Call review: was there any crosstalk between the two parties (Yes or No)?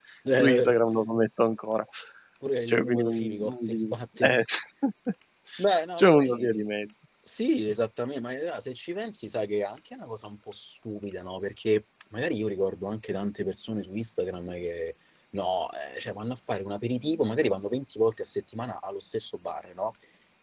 Yes